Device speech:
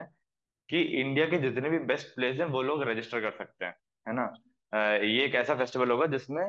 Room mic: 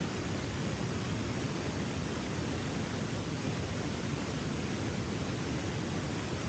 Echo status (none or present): none